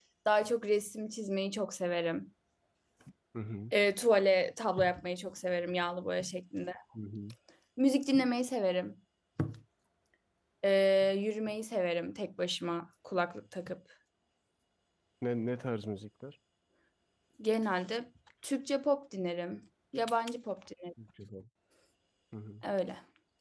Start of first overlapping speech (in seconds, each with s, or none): none